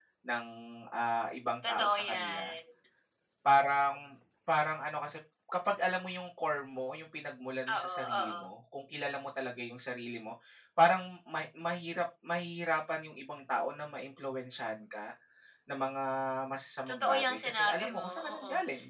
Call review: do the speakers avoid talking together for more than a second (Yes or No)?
No